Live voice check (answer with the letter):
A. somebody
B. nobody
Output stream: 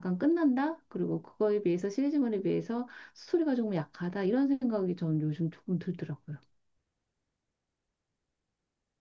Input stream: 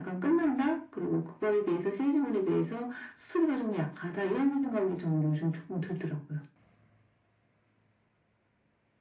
B